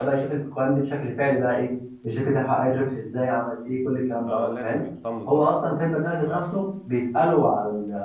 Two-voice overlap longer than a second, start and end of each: none

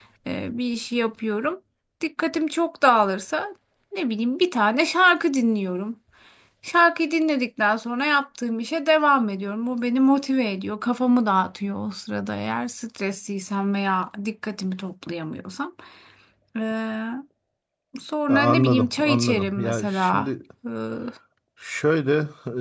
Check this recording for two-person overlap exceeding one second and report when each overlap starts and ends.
18.3-20.3

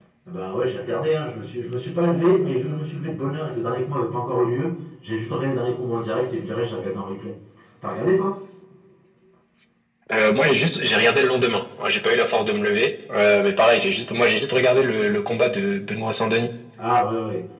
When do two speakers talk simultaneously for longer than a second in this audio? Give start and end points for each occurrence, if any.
none

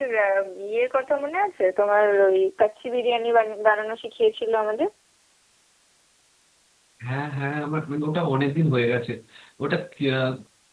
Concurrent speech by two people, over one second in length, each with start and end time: none

